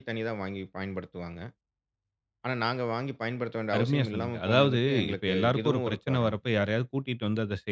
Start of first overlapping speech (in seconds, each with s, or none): 3.7 s